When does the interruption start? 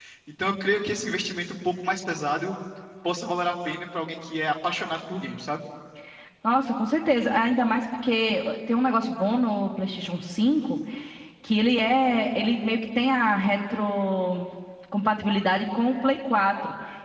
none

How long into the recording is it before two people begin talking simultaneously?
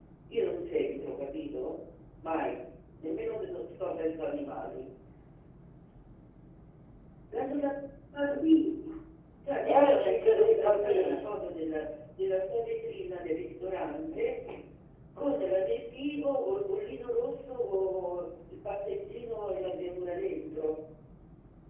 9.6 s

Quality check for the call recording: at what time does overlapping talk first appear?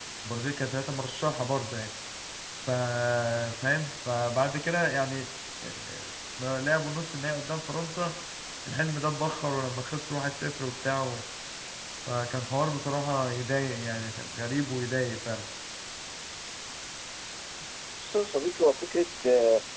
none

